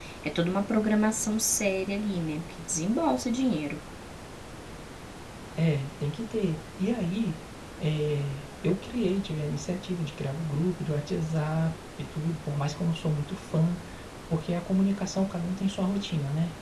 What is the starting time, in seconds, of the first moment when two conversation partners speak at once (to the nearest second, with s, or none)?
none